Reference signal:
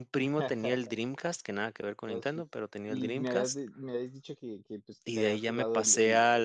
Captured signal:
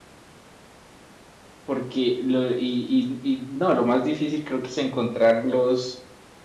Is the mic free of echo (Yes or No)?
Yes